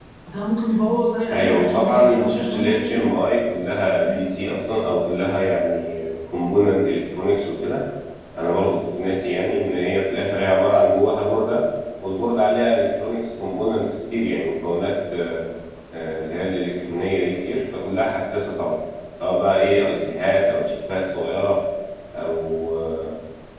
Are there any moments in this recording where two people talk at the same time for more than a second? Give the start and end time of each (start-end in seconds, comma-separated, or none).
1.3-3.1